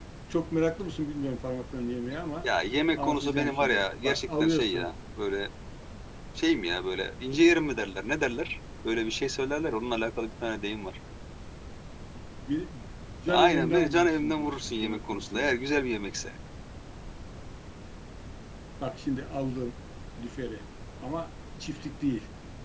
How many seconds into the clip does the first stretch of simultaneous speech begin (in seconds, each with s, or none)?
3.0 s